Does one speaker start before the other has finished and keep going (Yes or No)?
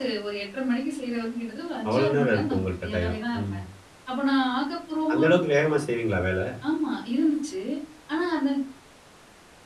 Yes